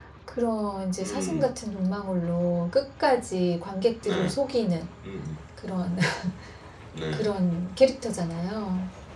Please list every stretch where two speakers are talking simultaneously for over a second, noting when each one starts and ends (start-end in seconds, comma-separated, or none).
none